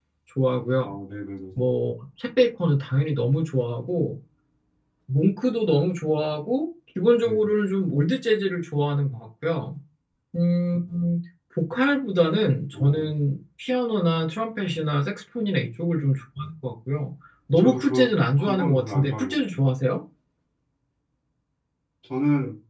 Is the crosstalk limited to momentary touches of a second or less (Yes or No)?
No